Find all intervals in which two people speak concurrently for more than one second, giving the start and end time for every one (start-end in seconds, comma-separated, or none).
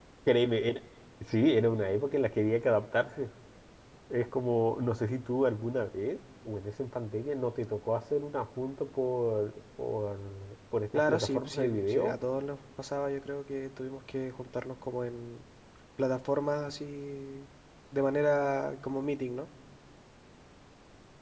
10.9-12.1